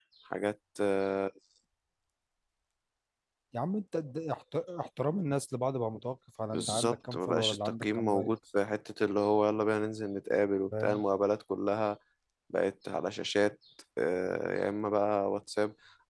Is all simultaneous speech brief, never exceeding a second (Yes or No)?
No